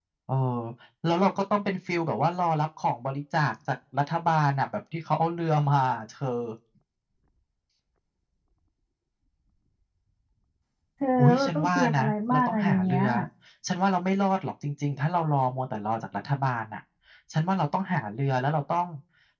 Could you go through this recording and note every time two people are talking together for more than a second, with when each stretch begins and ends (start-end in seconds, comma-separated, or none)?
11.2-13.0